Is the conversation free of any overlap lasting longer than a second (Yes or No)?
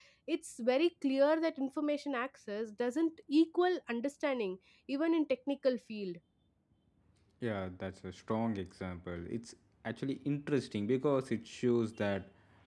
Yes